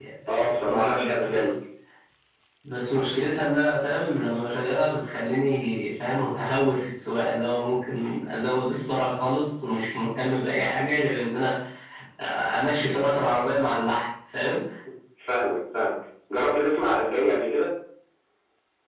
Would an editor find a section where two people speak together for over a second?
Yes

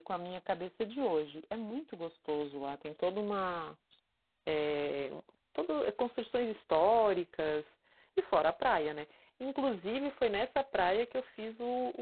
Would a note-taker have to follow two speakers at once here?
No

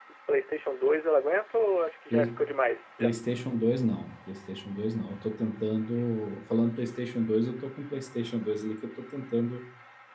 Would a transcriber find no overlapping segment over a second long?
Yes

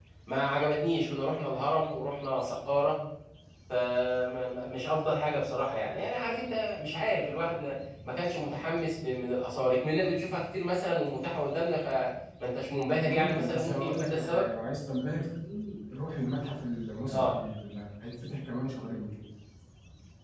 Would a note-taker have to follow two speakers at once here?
Yes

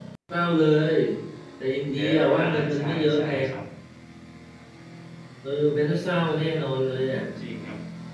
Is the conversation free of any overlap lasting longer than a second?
No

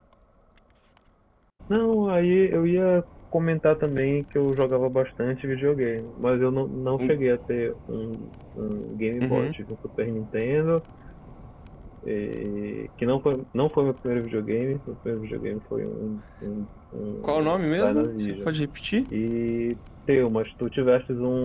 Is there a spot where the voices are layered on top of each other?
Yes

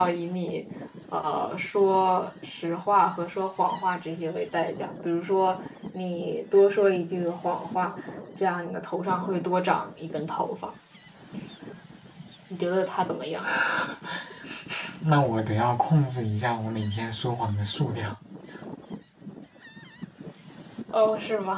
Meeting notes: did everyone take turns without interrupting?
Yes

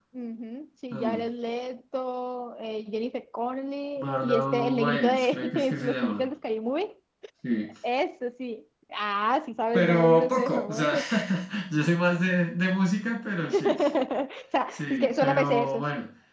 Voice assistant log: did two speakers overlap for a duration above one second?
Yes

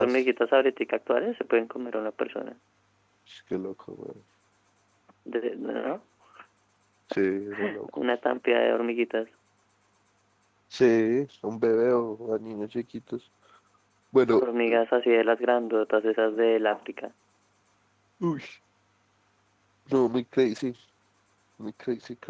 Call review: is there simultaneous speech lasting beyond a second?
No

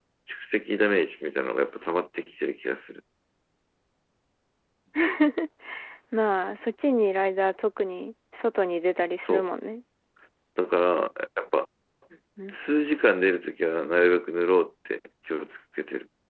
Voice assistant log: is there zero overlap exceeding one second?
Yes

